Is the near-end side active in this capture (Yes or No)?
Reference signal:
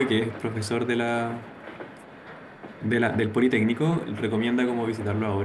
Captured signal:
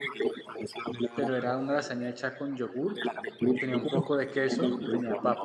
Yes